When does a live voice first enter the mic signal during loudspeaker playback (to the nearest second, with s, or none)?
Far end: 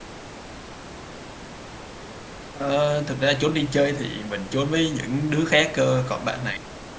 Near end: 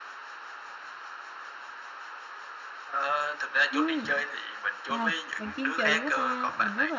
4 s